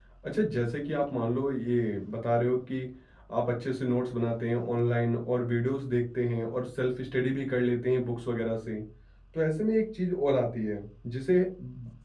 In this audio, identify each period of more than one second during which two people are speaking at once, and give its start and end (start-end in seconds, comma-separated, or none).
none